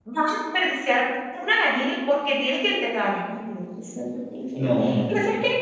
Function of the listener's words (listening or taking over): listening